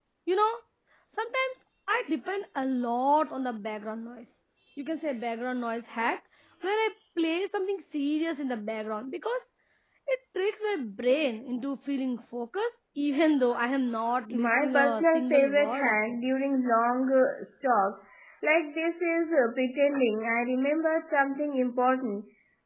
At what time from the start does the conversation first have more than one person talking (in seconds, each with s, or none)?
14.3 s